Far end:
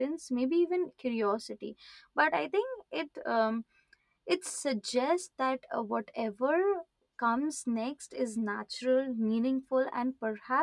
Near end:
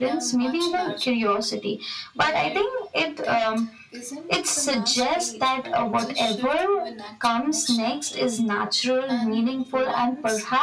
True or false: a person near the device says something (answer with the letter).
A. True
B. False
A